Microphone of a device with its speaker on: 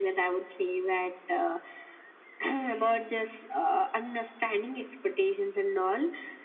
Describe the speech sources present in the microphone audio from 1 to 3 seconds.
echo only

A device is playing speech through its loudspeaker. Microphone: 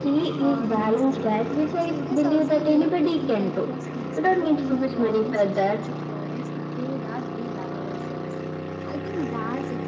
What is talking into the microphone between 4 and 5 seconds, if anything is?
both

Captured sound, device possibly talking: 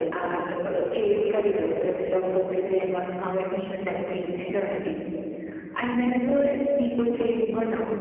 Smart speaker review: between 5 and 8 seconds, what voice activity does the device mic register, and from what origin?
echo only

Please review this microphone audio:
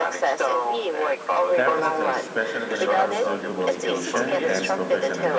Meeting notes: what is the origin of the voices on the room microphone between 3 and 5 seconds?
both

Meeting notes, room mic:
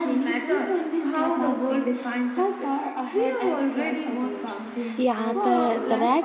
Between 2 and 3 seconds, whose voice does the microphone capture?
echo only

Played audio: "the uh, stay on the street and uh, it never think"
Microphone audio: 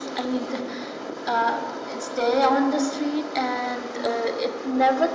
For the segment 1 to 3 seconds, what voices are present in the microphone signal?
echo only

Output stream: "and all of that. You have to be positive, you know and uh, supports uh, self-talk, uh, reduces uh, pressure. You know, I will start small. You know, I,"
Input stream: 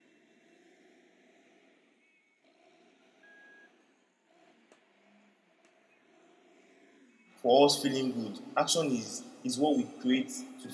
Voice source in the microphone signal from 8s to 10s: user only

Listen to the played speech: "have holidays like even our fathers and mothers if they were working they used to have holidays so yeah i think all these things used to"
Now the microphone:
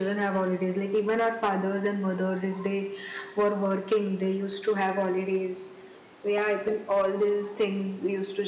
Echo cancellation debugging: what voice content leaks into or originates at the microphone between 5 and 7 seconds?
echo only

